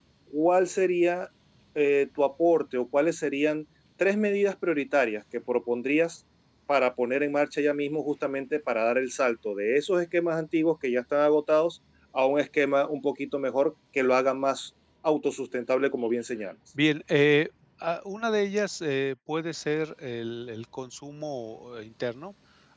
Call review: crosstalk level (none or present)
none